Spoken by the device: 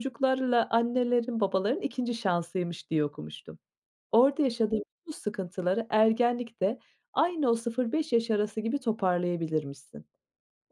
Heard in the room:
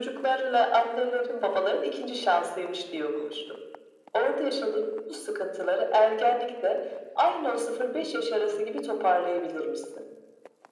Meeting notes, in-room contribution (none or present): none